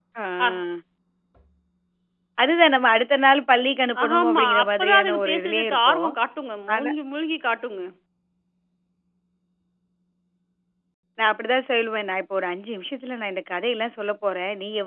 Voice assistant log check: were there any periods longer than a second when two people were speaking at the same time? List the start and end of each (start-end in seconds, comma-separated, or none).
4.0-6.1